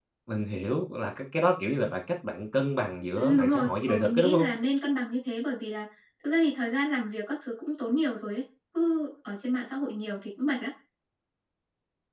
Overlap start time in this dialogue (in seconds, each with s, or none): 3.1 s